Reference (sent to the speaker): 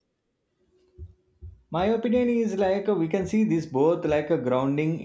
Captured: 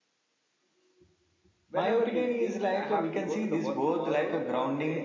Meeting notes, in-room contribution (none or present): present